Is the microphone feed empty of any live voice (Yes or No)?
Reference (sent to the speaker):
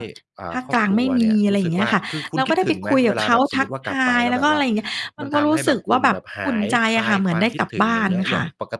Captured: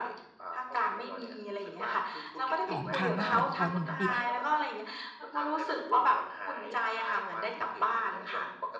No